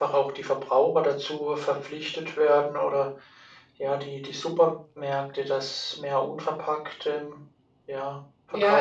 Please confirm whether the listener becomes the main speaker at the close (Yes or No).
Yes